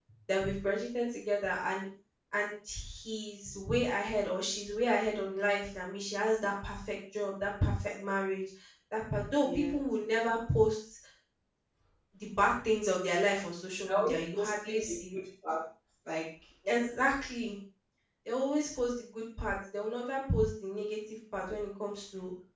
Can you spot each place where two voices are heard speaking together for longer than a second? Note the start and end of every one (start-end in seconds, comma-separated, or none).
13.9-15.1